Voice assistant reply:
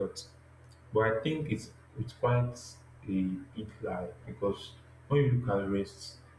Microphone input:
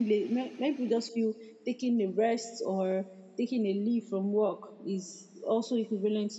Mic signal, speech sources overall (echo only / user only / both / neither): user only